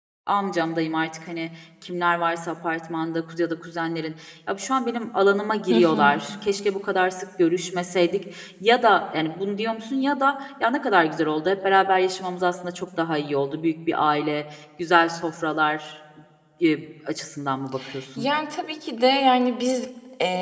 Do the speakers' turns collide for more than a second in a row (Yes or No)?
No